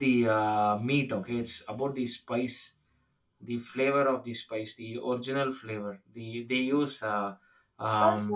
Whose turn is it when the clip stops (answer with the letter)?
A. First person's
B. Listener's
B